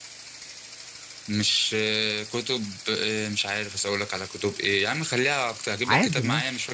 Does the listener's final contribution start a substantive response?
No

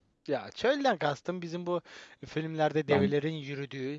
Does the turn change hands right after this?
No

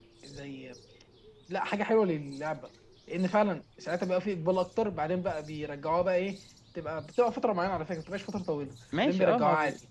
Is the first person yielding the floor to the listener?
Yes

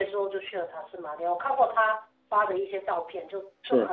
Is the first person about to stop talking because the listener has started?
No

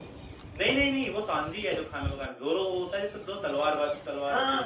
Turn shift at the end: Yes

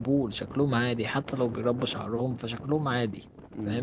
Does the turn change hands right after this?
Yes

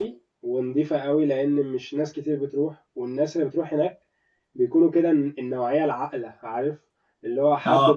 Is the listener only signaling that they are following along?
Yes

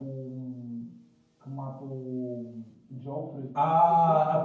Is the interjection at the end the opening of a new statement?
Yes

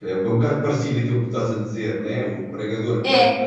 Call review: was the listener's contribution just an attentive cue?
Yes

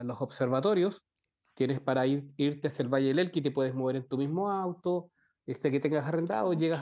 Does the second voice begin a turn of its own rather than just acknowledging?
No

